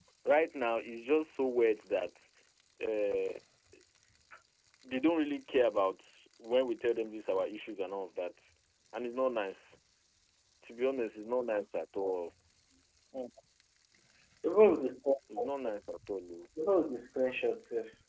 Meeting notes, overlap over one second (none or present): none